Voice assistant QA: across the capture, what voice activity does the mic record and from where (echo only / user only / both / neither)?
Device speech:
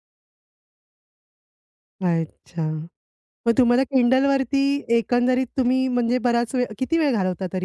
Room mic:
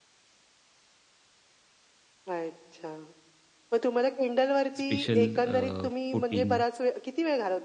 both